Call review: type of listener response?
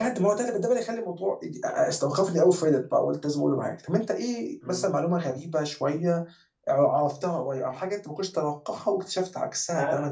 taking over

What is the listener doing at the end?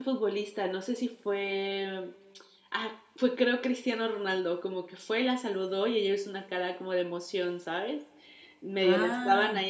listening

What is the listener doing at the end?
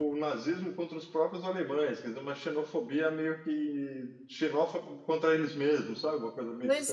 taking over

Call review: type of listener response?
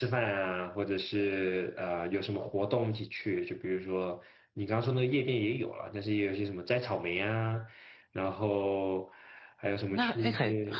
taking over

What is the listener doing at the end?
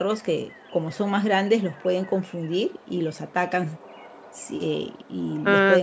taking over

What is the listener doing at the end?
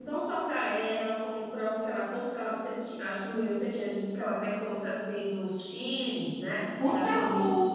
taking over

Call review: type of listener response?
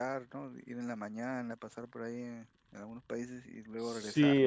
taking over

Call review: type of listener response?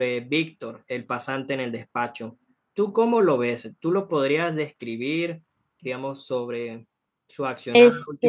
listening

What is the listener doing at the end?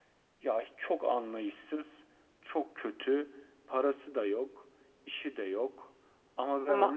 listening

